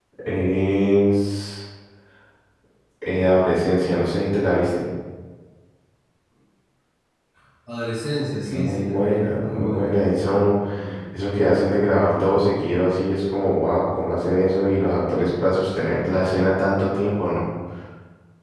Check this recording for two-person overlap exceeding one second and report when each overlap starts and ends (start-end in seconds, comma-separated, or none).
8.4-10.0